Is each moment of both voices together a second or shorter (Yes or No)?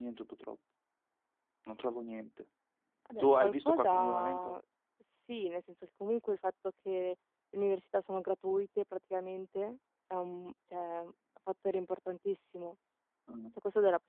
No